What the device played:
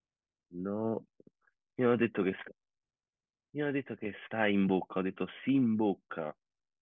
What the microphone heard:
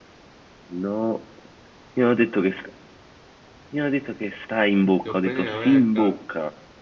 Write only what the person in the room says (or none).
devo prendere la mangiare.